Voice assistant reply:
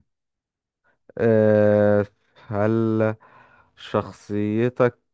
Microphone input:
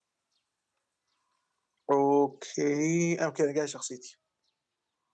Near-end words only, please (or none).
اوكي اوكي انا جاي شخصيتي